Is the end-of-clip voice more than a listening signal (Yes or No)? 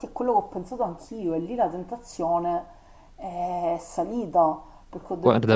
No